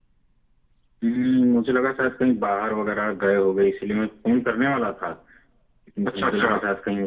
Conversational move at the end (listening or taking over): listening